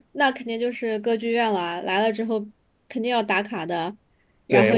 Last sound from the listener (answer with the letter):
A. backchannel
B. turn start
B